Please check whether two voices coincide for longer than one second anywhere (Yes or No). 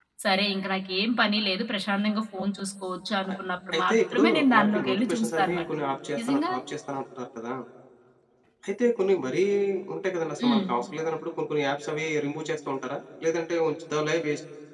Yes